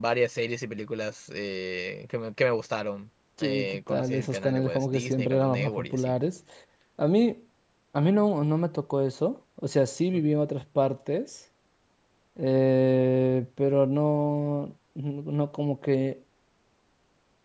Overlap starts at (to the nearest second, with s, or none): 3 s